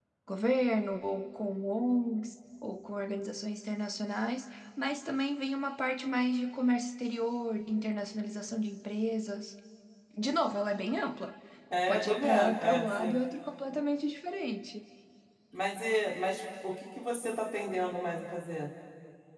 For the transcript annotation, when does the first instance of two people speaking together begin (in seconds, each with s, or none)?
11.9 s